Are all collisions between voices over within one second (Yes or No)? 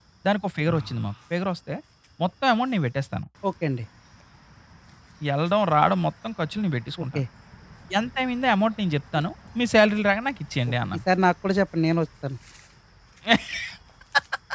Yes